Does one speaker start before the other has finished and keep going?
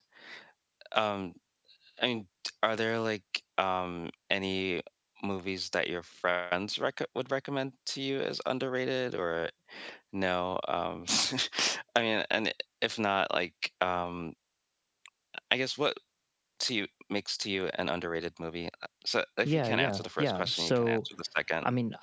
Yes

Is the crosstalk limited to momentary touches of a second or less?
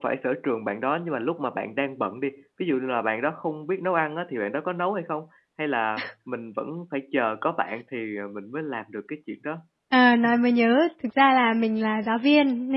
Yes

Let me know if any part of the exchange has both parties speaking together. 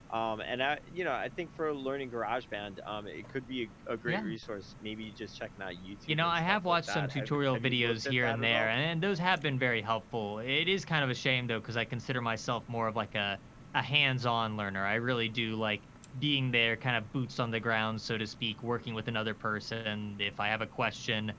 Yes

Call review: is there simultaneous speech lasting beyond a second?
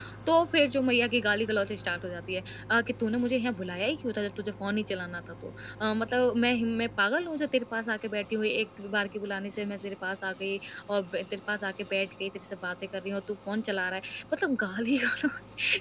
No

